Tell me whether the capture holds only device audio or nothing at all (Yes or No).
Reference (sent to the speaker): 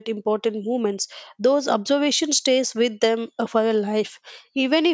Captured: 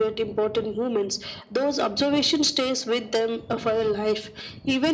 Yes